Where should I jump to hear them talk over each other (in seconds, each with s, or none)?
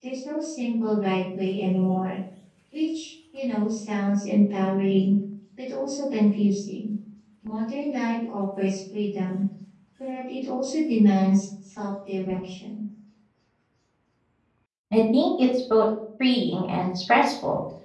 none